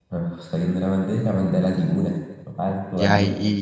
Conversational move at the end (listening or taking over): taking over